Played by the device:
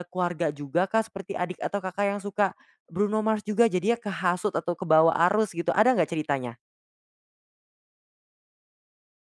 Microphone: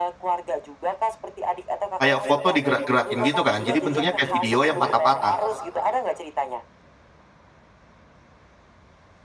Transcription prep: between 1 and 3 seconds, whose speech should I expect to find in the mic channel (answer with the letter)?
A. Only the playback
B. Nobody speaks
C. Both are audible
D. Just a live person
C